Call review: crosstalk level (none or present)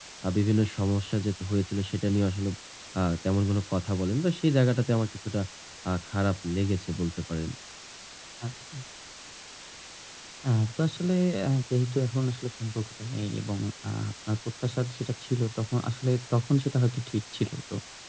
none